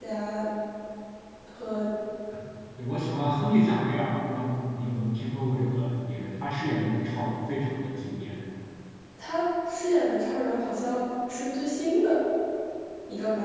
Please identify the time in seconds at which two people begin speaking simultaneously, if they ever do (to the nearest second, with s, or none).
none